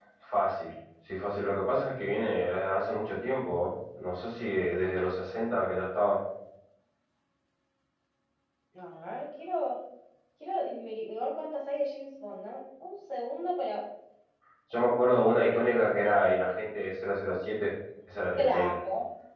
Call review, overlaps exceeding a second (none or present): none